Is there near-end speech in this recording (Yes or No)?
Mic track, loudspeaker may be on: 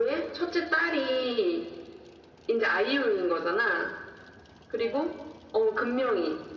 No